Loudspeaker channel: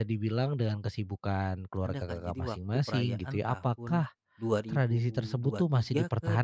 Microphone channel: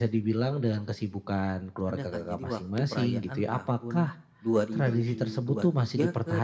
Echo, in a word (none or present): present